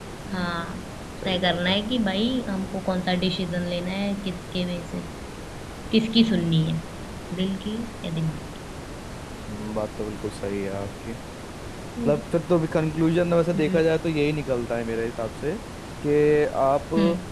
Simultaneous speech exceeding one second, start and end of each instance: none

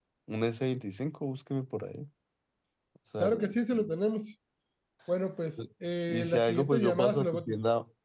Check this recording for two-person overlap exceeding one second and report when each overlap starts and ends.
6.1-7.6

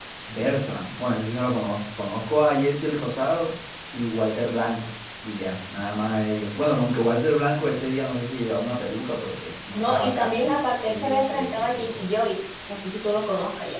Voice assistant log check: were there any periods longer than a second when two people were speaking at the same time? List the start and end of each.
9.7-12.0

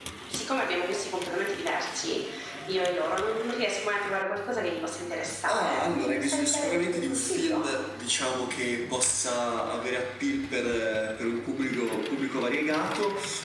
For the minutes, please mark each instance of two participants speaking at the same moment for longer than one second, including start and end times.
5.5-7.6

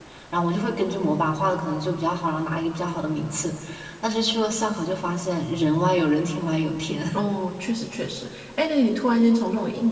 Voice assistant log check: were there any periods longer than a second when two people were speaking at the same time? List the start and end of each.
none

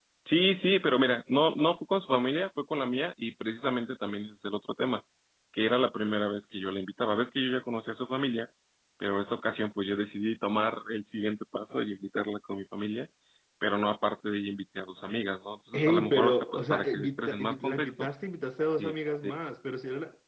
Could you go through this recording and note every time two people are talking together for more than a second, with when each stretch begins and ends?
15.7-18.1

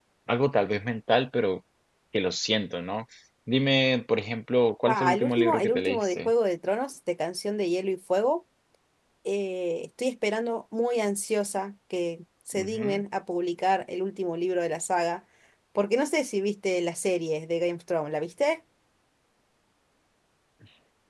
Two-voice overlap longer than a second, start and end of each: 4.9-6.3

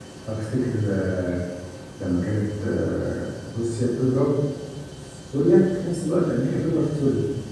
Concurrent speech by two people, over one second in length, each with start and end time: none

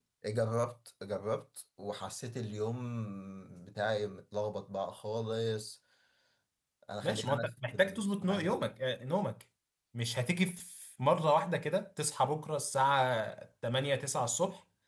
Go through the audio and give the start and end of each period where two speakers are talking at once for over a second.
7.0-8.6

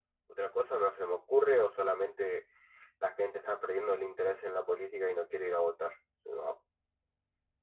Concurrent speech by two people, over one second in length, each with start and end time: none

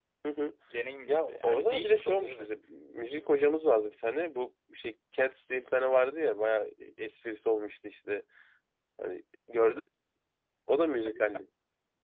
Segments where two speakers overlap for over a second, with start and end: 1.1-2.5

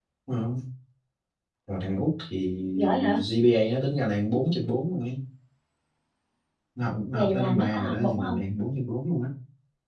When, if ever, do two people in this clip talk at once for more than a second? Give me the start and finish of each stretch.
7.1-8.4

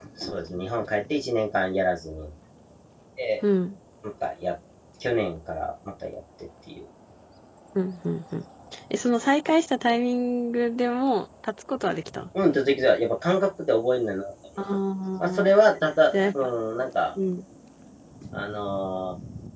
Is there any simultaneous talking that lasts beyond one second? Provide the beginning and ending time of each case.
none

